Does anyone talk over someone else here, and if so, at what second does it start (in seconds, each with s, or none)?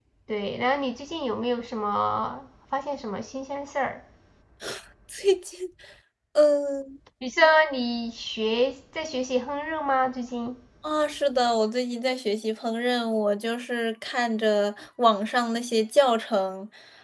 none